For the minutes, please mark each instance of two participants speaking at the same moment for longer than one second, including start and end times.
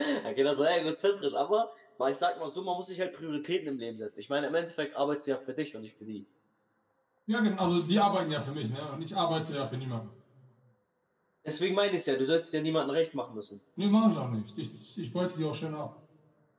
none

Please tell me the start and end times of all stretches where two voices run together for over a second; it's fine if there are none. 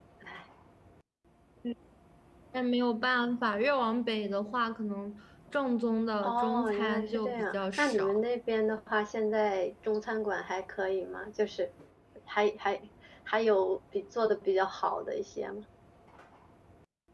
6.2-8.2

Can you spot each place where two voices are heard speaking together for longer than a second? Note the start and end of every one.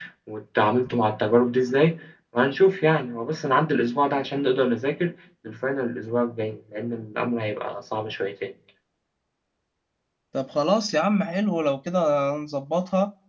none

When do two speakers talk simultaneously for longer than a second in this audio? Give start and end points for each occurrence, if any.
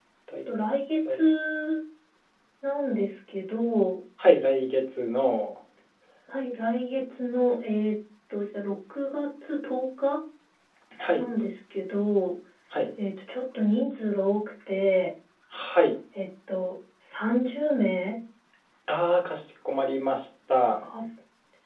none

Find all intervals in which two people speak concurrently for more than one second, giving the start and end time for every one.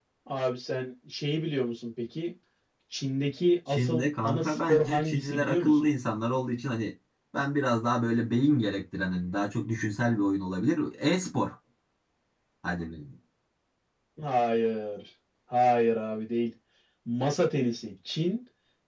3.7-5.7

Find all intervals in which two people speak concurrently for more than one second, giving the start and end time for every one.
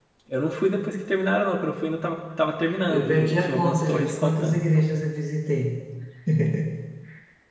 2.9-4.6

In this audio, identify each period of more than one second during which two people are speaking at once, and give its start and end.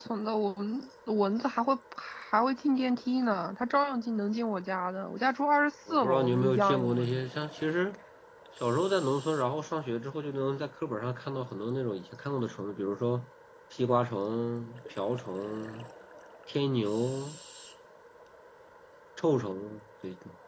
5.9-7.2

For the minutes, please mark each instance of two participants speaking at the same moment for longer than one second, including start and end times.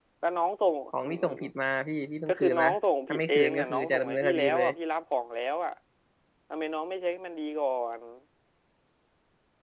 3.1-4.7

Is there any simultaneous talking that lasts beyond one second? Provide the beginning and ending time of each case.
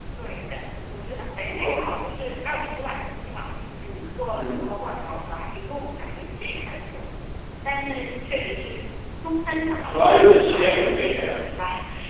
9.8-11.3

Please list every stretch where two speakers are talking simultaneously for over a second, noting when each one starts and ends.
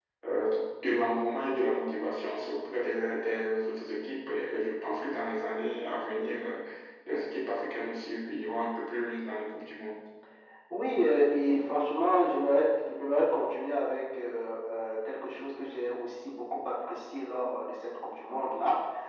none

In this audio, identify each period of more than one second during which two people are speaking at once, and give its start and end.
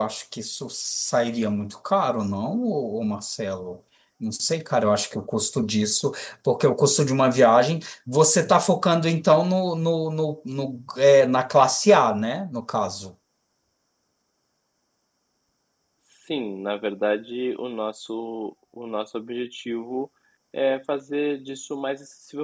none

